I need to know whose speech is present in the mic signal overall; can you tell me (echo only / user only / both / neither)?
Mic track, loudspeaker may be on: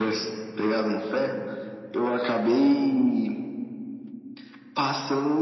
echo only